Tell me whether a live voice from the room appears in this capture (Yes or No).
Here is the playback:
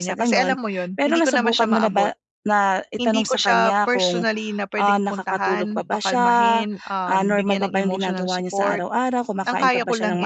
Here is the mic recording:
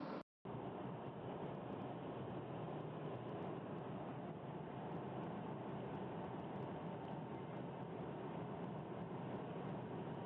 No